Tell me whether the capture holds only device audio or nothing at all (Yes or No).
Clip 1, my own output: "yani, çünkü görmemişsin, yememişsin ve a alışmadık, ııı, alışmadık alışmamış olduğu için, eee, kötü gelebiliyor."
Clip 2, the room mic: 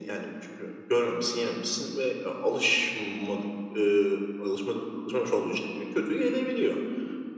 Yes